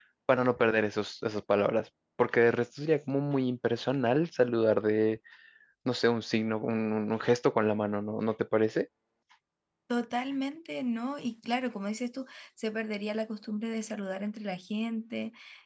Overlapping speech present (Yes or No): No